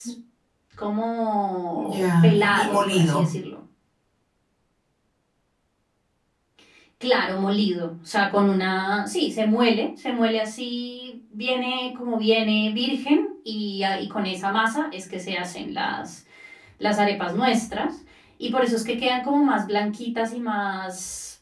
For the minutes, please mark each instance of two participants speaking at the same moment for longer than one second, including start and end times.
1.8-3.3

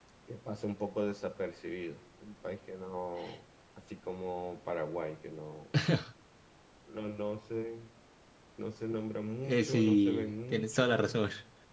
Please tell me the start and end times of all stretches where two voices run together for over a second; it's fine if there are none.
9.4-11.2

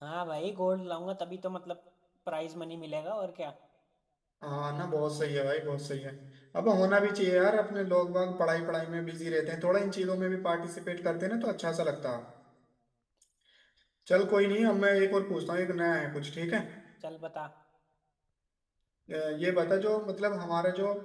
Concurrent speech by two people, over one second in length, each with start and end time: none

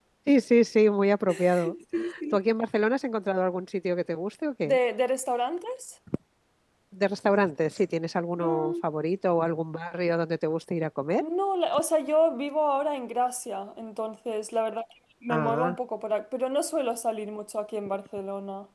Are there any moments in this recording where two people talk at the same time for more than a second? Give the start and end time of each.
none

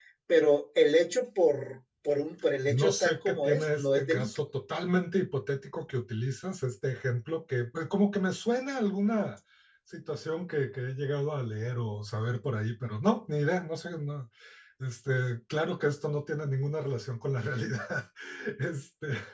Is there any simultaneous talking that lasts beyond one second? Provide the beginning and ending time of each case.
2.7-4.4

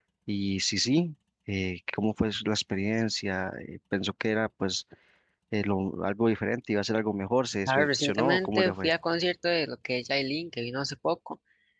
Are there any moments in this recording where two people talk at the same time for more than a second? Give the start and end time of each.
7.7-8.9

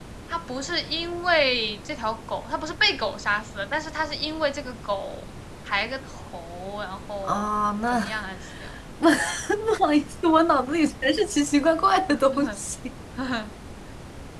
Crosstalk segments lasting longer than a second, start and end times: none

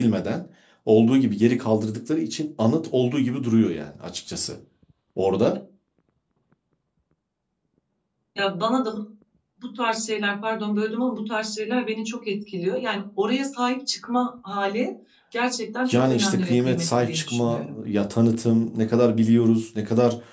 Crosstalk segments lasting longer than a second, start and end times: 15.9-17.8

